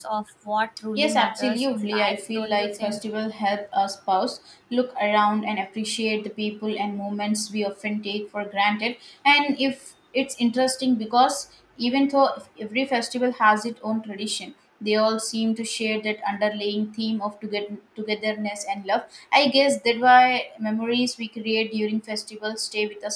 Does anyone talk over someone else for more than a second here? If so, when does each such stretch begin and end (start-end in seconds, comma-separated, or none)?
1.0-3.0